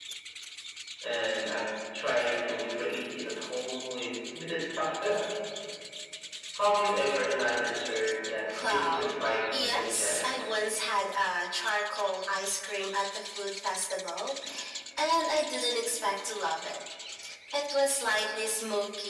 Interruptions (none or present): present